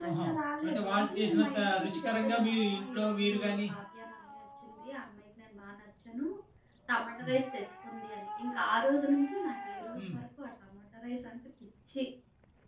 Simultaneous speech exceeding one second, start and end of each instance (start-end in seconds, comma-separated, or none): 0.6-3.7